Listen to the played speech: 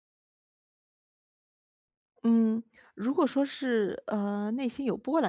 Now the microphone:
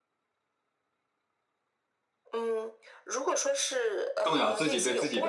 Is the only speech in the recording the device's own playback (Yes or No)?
No